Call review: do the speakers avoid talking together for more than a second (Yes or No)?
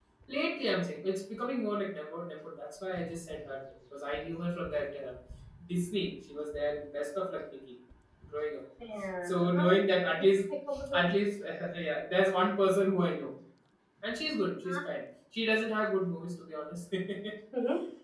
Yes